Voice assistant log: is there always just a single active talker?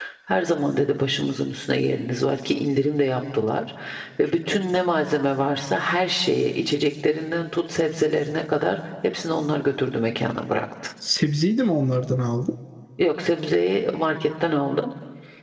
Yes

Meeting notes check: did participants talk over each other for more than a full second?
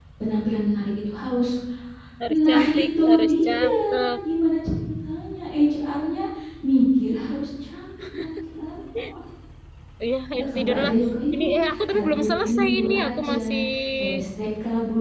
Yes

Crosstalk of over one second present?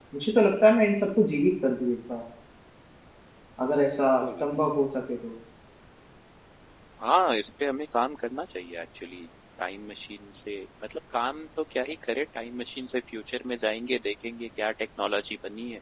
No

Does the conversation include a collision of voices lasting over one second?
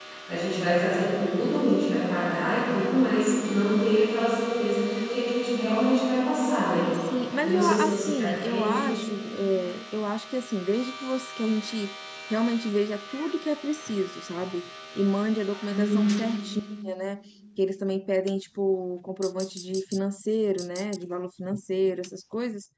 Yes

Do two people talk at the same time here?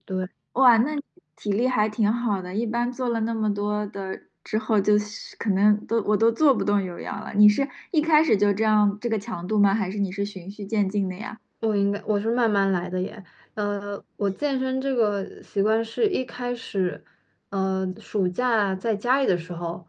No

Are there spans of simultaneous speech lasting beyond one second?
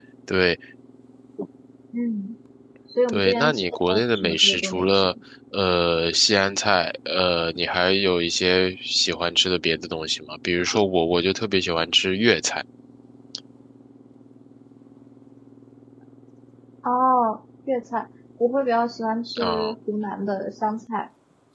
Yes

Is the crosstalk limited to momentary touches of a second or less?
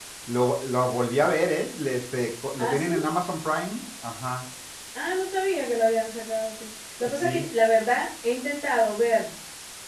Yes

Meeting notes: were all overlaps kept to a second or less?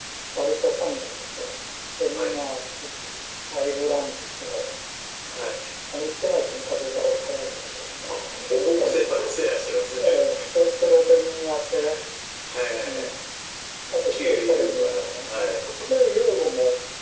No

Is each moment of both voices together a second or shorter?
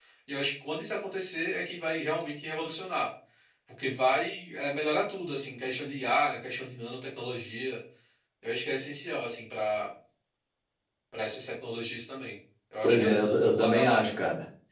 No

